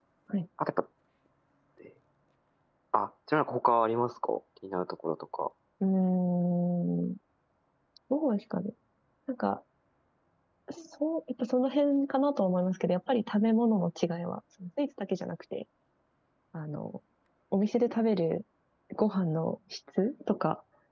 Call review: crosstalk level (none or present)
none